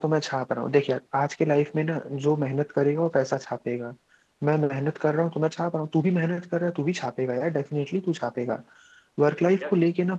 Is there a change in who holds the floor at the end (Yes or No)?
No